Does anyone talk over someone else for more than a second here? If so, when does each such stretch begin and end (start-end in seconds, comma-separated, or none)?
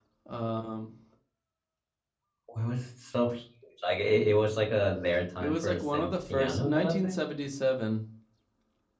5.4-7.2